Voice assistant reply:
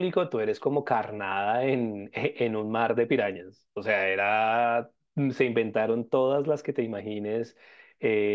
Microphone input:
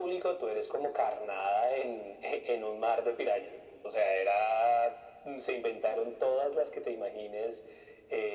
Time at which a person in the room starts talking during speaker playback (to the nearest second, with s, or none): none